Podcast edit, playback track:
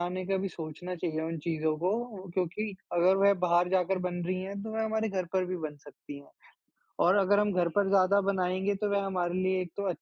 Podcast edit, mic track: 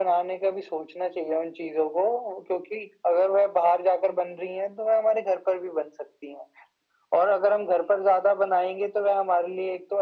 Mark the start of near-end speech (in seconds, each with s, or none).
none